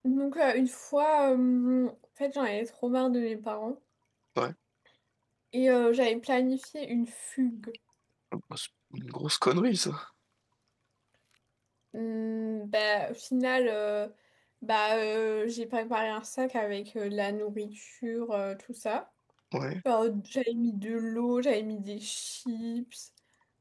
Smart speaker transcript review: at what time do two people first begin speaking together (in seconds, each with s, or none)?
none